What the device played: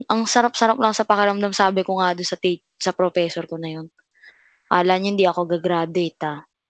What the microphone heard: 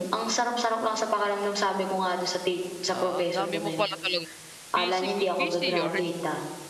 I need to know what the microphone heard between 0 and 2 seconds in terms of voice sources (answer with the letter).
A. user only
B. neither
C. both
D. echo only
D